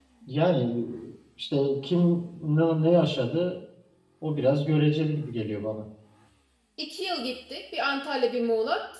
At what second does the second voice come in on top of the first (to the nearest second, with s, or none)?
none